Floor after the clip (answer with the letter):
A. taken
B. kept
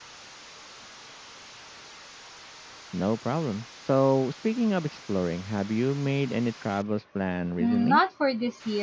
A